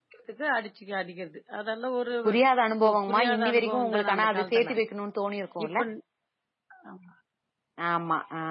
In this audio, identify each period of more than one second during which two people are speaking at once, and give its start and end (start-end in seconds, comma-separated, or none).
2.8-4.7